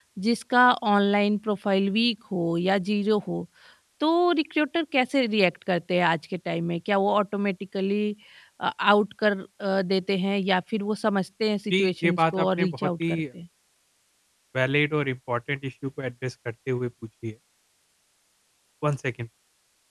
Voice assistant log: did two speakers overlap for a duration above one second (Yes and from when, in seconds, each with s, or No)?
Yes, from 11.7 s